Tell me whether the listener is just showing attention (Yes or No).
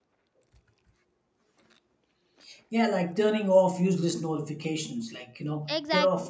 Yes